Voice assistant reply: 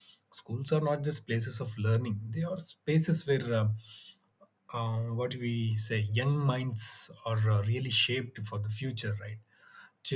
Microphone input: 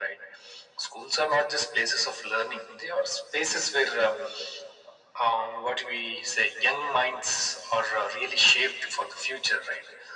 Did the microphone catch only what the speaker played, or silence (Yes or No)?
Yes